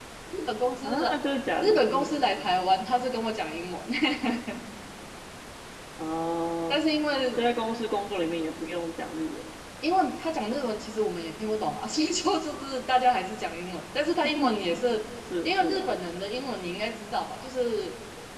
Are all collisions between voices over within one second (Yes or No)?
Yes